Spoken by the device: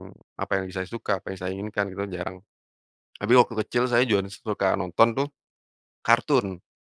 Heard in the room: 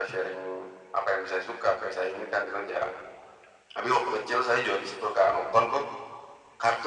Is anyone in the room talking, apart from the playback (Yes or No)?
No